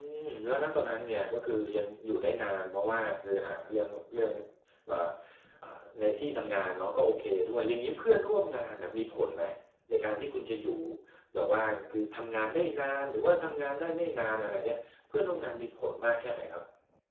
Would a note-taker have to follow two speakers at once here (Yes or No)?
No